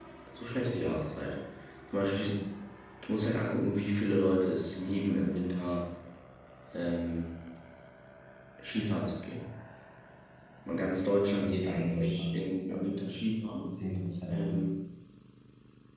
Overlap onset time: 11.4 s

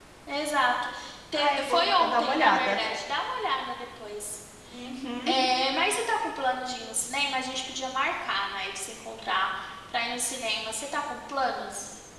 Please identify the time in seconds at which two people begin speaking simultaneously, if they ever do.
1.3 s

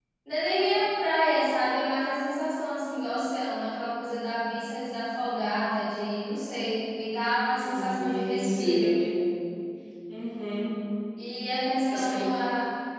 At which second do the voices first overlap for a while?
7.6 s

